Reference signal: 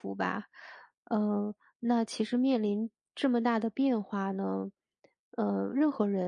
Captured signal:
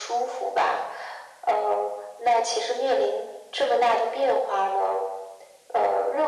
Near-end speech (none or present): none